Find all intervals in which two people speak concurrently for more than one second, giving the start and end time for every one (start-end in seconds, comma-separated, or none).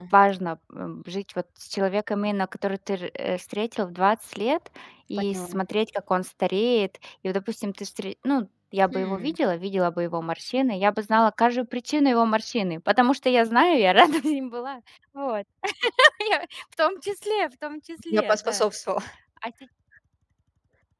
none